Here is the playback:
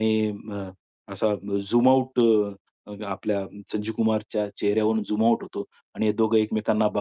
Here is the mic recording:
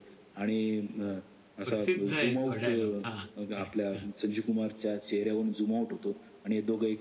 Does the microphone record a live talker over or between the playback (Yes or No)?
Yes